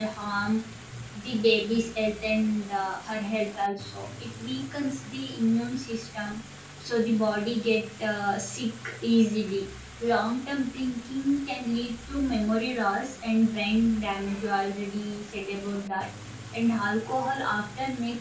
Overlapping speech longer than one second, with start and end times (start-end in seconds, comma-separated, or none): none